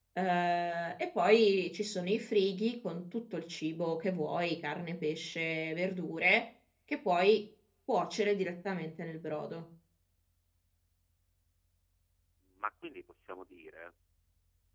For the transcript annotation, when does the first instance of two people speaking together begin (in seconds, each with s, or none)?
none